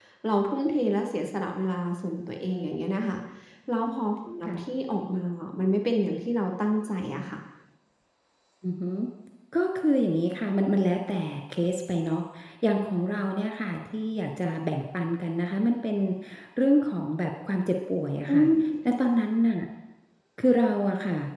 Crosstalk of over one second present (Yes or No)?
No